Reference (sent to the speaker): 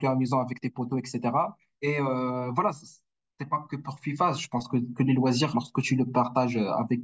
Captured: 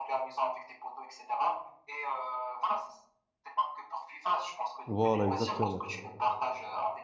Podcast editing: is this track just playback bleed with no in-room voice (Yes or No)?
No